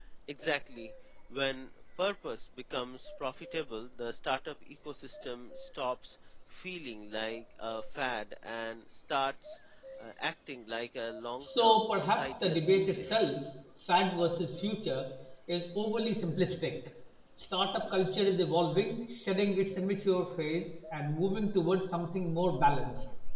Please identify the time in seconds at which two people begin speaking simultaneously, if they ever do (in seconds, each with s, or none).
11.4 s